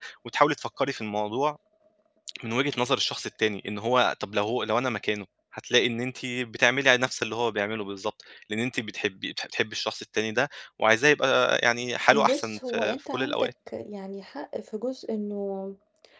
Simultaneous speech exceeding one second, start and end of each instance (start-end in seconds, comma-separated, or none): 12.1-13.5